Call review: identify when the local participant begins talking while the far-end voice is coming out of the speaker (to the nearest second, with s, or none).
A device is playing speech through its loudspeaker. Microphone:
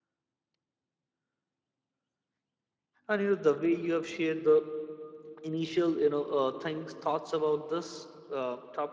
3 s